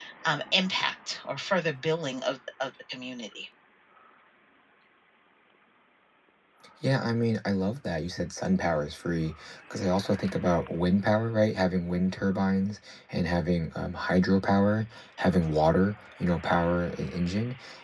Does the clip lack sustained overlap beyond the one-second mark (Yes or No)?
Yes